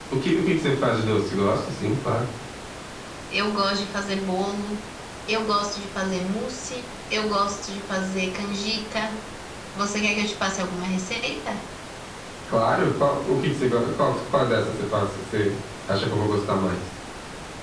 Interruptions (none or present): none